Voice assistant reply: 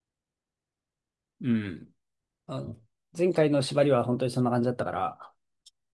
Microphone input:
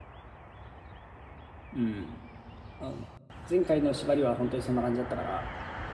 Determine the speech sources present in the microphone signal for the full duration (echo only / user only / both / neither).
echo only